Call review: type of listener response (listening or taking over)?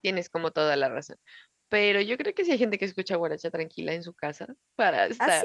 taking over